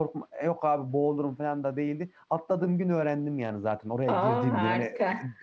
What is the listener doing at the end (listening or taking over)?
listening